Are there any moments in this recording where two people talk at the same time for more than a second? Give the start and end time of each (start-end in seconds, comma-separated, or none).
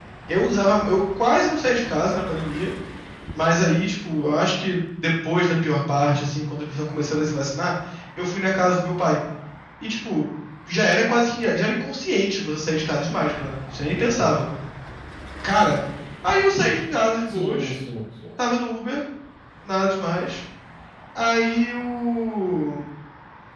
none